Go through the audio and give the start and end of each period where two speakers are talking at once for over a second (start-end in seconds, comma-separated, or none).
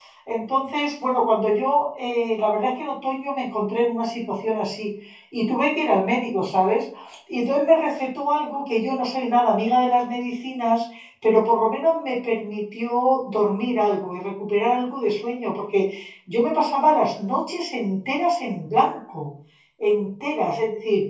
none